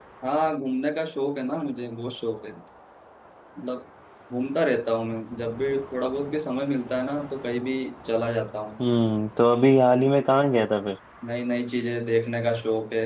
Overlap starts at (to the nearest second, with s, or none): none